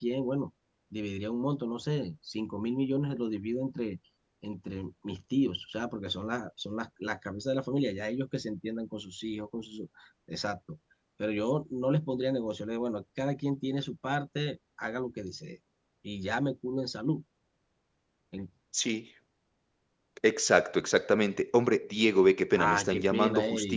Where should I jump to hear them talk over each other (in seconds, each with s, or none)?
22.6 s